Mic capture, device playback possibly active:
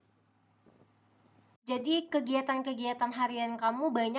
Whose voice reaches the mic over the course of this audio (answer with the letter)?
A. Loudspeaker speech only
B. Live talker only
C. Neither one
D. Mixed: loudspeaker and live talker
B